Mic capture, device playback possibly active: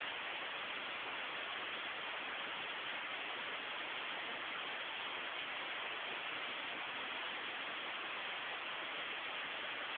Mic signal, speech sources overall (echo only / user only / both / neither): neither